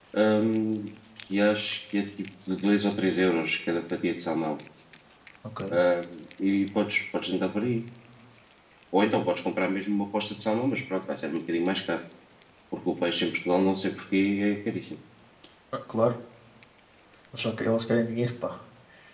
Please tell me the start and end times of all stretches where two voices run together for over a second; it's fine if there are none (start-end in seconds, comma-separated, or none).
none